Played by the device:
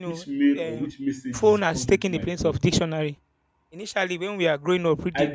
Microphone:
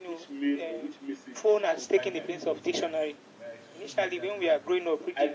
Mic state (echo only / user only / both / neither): both